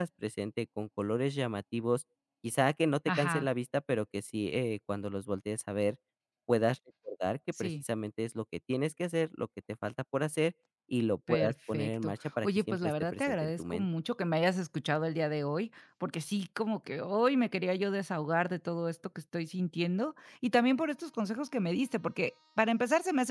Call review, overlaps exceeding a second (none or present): present